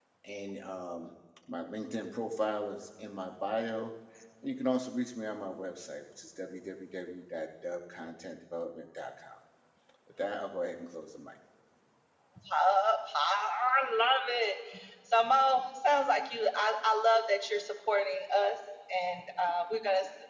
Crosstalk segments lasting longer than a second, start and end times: none

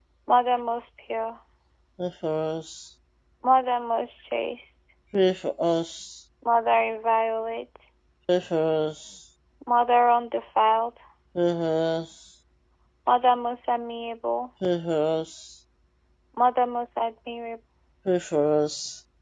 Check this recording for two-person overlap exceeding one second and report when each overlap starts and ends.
none

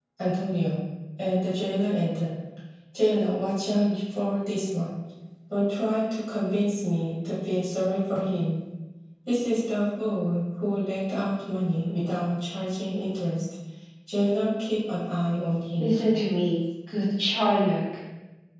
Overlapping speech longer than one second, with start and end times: none

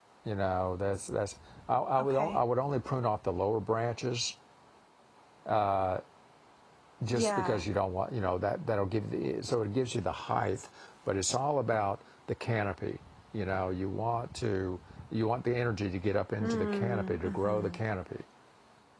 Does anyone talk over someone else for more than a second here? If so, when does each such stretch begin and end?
16.4-17.8

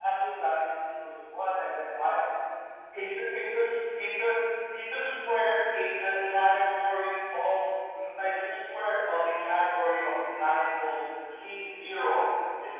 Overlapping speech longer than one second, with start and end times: none

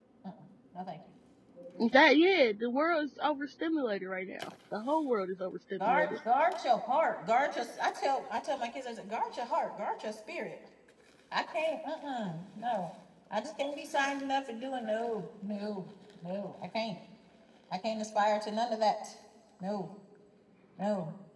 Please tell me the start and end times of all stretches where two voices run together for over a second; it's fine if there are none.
none

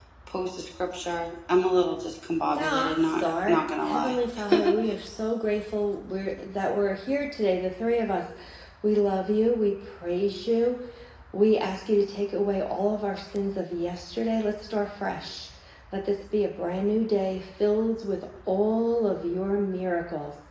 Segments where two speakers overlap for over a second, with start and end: 2.5-4.2

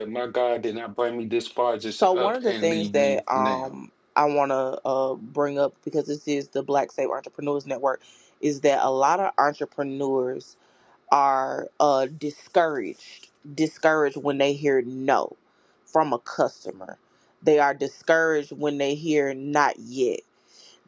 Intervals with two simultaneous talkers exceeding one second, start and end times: 2.0-3.7

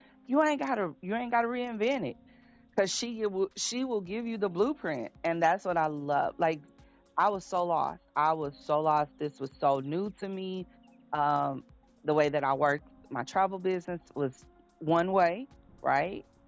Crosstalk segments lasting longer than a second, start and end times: none

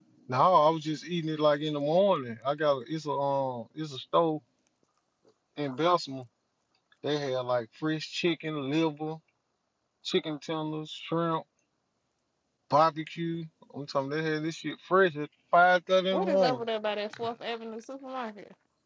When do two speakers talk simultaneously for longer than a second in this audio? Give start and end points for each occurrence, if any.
none

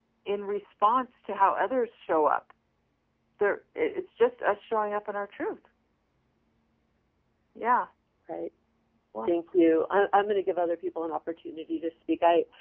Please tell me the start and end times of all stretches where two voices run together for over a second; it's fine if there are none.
none

